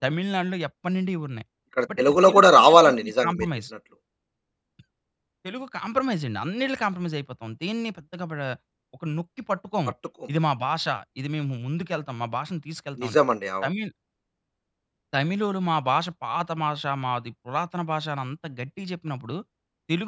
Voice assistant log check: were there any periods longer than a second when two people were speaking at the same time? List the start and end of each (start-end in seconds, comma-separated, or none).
2.0-3.4